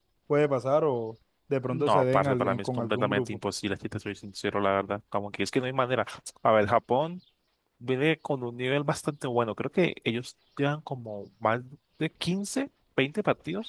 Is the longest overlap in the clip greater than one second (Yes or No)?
Yes